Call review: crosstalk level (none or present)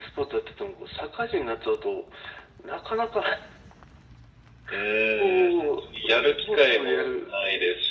present